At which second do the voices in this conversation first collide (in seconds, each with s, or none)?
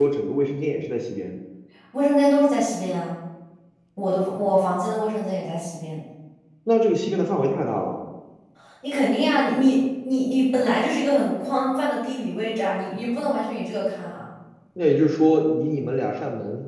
none